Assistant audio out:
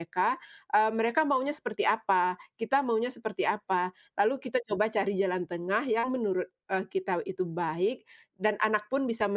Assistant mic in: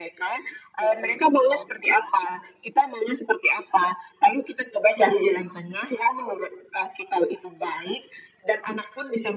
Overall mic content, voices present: both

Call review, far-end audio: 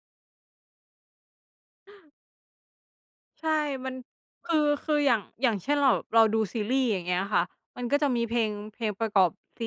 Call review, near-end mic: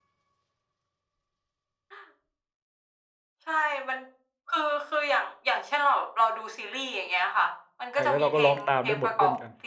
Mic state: both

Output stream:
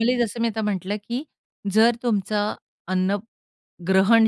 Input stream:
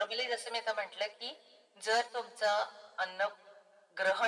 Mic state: echo only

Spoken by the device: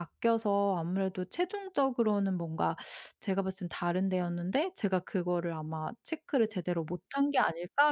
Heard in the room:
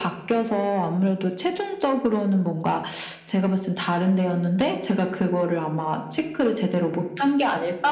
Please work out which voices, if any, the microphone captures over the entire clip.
echo only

